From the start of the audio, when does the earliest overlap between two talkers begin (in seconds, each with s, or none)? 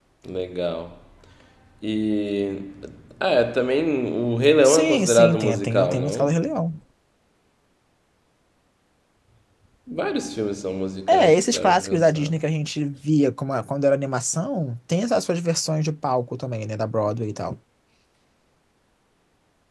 4.6 s